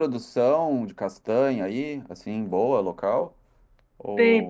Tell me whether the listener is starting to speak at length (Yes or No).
Yes